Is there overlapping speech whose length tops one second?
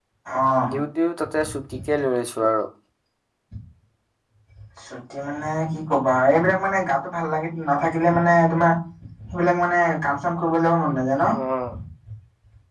No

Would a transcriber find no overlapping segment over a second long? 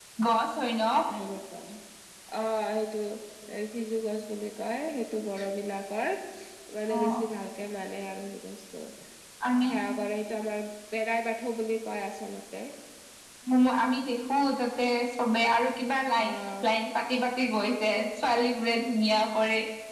Yes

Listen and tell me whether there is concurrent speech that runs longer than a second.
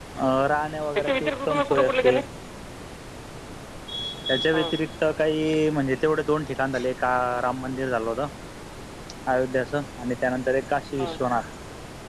Yes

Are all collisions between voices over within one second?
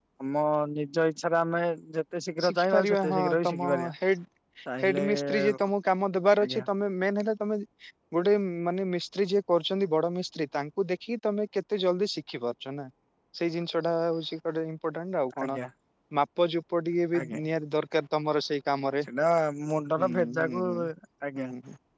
No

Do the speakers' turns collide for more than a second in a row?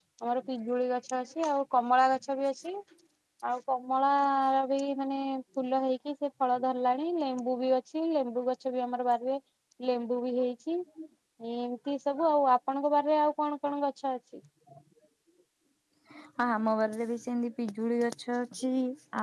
No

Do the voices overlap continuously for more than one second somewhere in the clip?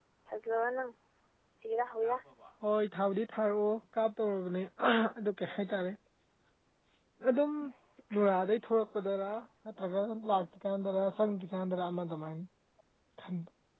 No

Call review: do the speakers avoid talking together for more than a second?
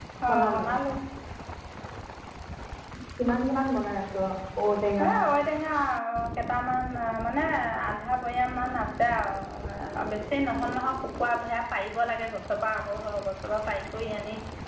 Yes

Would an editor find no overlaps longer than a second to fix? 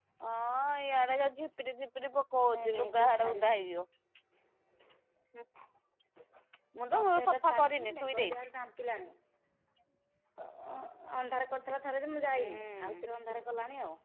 No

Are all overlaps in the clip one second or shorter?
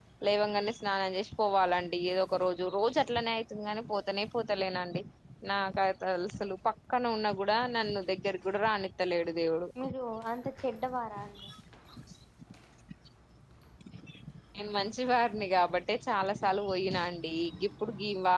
Yes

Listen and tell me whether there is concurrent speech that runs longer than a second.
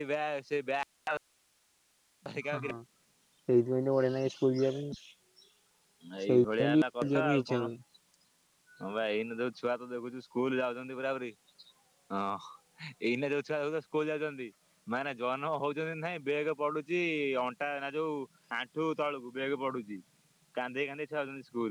Yes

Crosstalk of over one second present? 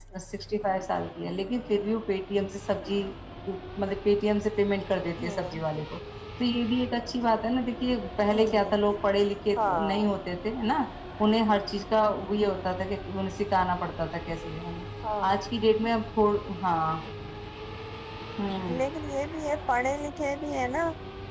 No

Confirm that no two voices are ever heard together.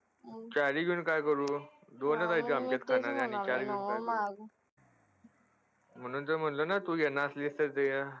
No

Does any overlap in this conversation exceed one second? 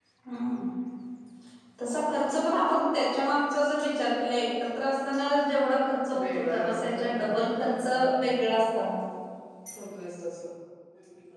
Yes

